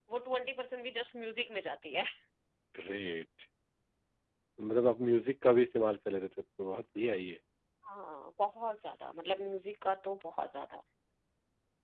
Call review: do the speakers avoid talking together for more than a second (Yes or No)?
Yes